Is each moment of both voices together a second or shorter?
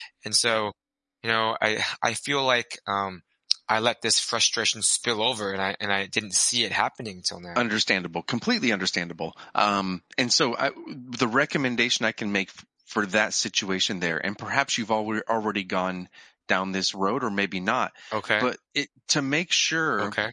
Yes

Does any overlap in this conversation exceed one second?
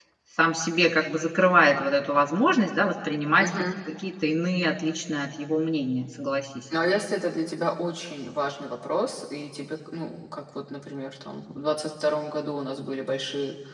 No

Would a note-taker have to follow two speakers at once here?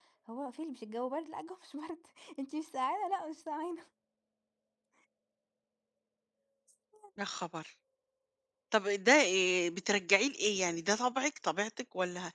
No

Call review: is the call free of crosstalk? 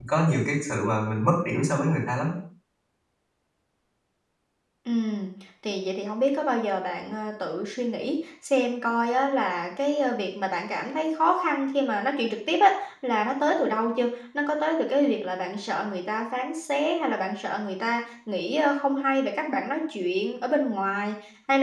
Yes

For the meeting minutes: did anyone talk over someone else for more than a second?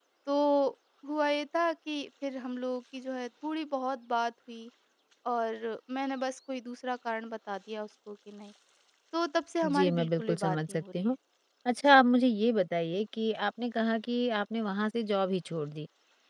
Yes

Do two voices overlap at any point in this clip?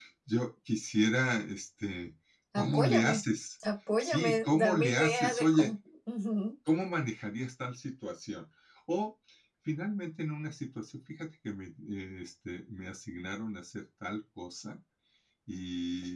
Yes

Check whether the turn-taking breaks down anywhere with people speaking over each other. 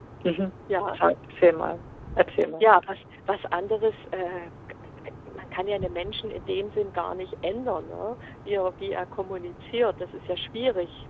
No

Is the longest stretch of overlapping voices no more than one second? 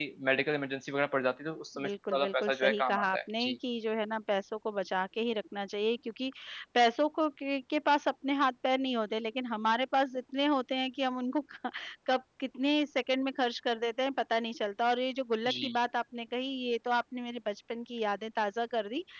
No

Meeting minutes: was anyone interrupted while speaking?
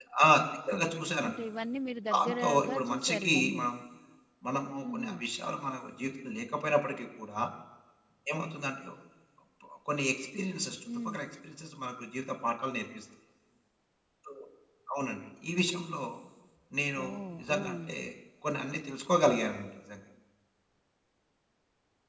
Yes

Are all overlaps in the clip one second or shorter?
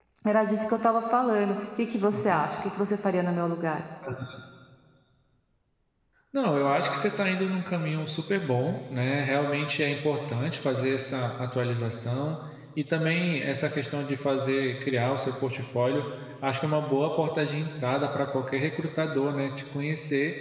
Yes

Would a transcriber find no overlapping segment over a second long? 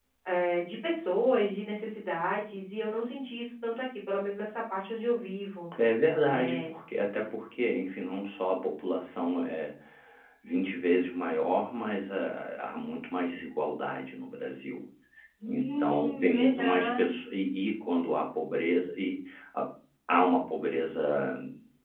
No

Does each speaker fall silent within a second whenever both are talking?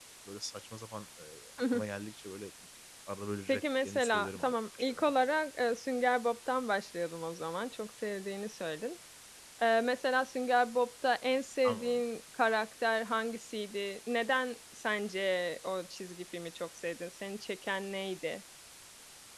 No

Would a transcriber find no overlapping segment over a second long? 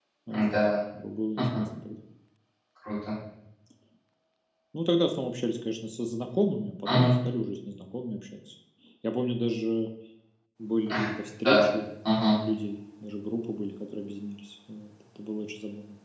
Yes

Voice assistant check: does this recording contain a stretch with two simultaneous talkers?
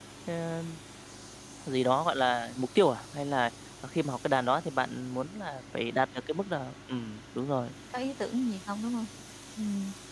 No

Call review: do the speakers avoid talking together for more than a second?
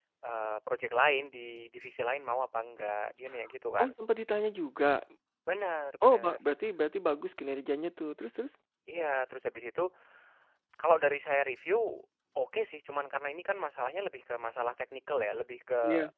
Yes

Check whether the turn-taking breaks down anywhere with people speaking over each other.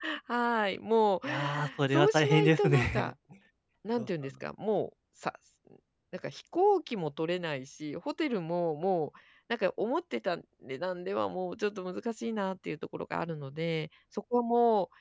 Yes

